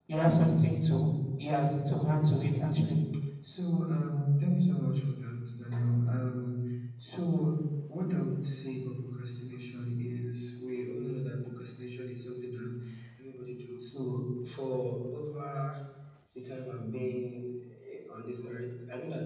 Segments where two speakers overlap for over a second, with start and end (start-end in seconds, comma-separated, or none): none